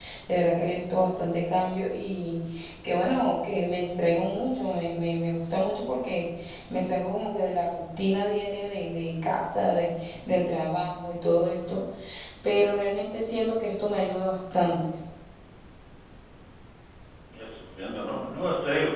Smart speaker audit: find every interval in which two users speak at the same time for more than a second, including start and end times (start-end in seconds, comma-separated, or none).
none